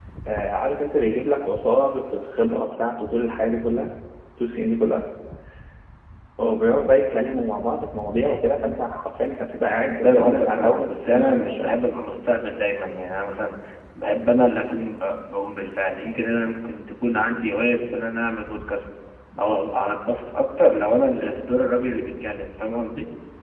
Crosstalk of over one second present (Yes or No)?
Yes